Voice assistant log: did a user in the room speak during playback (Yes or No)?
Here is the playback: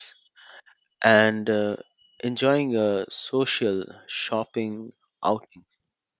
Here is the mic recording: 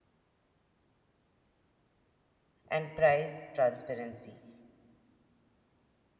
Yes